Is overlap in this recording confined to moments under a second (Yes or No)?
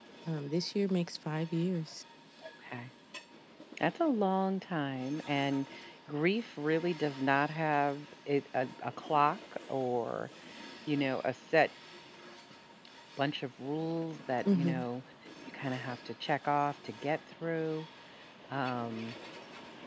Yes